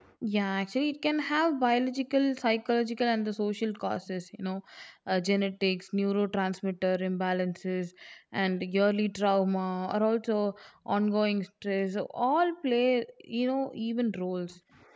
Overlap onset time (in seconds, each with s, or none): none